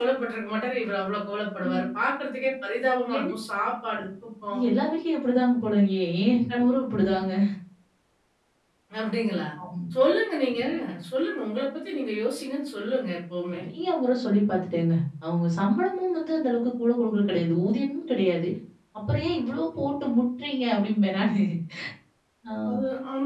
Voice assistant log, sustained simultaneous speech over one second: none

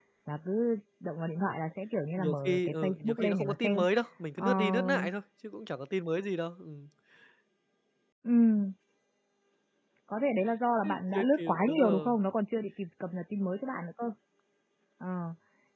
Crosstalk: present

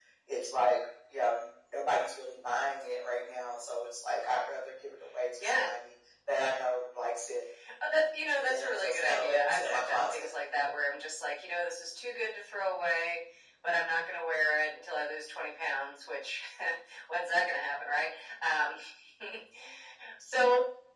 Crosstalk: present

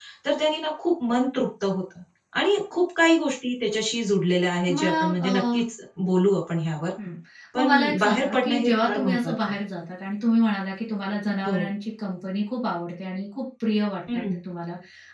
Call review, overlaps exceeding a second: present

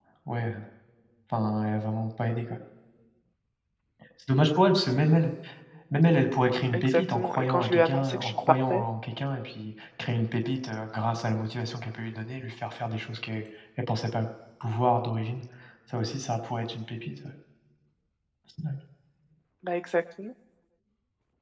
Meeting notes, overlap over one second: present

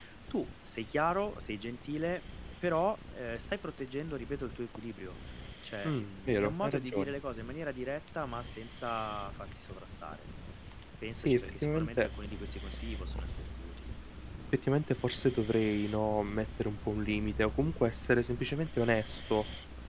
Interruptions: present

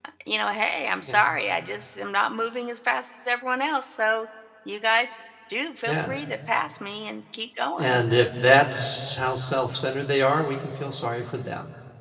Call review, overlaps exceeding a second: none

